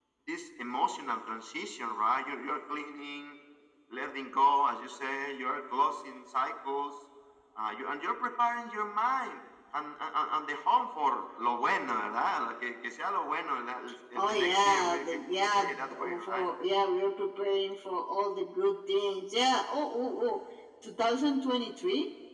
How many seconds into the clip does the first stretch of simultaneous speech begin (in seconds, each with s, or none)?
14.2 s